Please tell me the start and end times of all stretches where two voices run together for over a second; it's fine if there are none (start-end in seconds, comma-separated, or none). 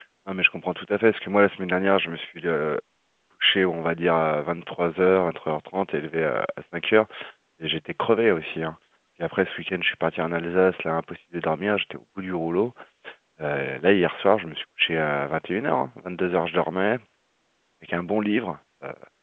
none